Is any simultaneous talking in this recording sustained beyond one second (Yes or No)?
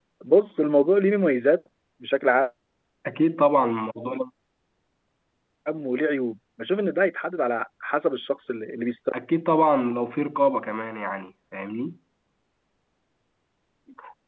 No